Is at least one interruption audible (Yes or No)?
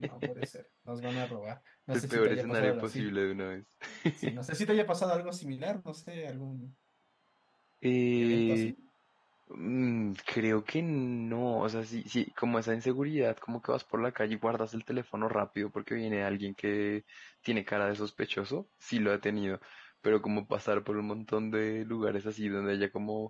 Yes